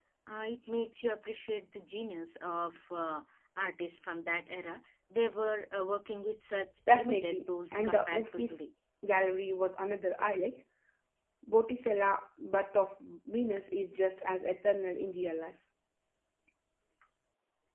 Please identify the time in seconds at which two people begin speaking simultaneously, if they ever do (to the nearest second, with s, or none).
7 s